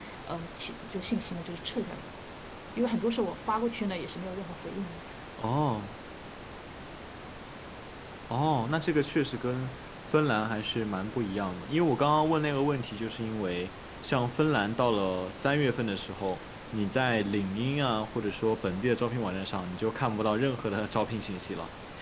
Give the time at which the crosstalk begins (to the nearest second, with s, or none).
none